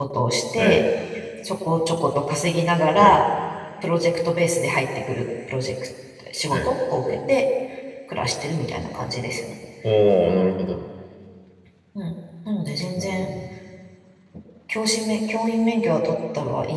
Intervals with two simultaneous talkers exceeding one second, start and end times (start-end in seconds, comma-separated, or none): none